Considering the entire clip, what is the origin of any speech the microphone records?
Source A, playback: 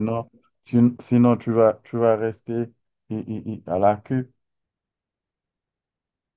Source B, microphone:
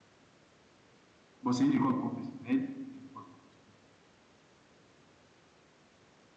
user only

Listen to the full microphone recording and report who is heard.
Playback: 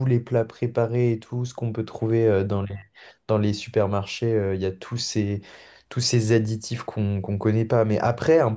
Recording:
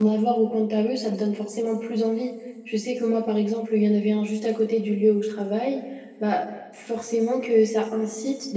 user only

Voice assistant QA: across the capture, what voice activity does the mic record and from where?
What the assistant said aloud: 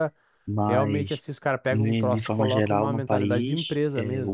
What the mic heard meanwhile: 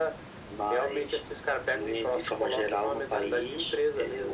echo only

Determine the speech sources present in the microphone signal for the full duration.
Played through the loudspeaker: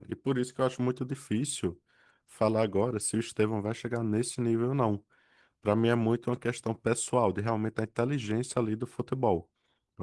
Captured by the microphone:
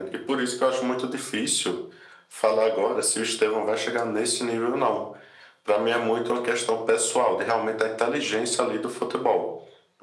echo only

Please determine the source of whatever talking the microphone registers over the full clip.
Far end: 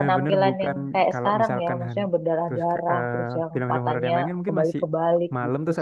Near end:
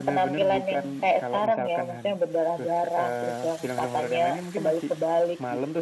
echo only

